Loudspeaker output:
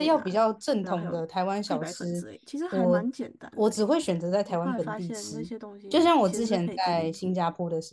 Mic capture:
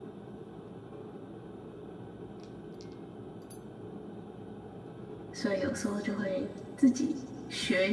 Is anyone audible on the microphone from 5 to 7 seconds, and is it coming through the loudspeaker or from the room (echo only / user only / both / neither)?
user only